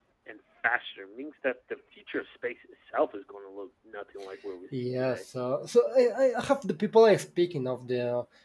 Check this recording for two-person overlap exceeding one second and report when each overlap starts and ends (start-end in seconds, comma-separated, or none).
none